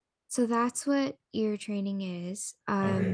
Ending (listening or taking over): taking over